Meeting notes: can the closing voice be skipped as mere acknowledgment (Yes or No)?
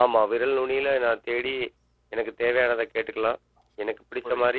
Yes